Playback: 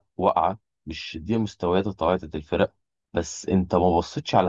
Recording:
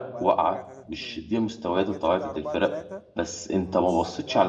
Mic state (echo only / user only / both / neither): both